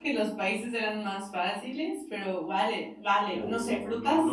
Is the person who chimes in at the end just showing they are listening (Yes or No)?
No